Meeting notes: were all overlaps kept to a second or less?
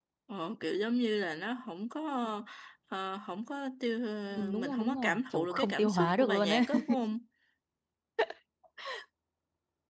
No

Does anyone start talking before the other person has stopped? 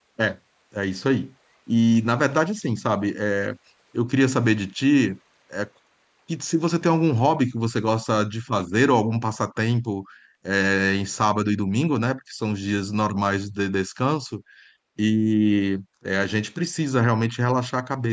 No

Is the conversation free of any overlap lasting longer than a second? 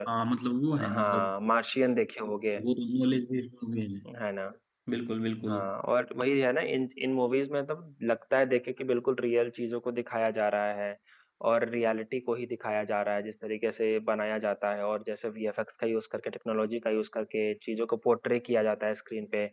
Yes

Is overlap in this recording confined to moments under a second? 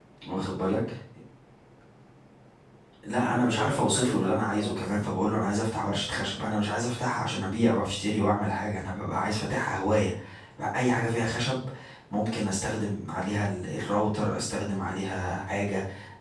No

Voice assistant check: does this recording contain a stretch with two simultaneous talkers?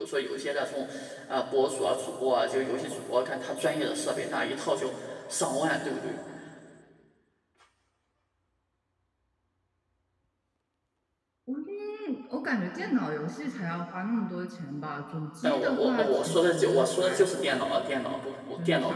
Yes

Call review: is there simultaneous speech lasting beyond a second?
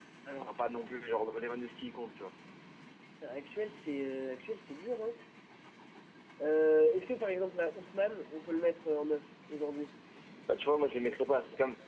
No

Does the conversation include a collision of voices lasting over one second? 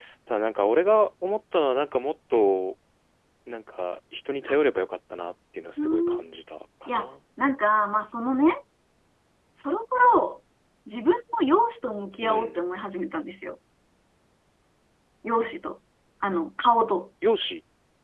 No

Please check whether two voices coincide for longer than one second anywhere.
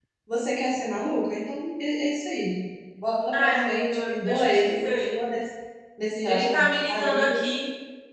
Yes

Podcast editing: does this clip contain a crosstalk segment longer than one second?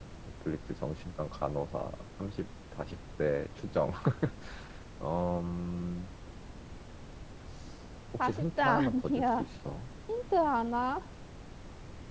Yes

